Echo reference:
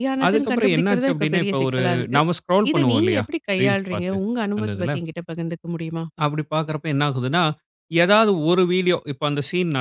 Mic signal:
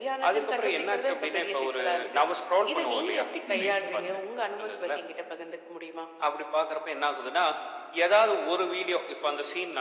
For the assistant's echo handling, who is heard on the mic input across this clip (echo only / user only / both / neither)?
both